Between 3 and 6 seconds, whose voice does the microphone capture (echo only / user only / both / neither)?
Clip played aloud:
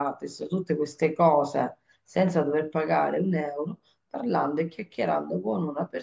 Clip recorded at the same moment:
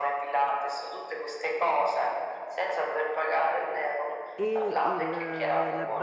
both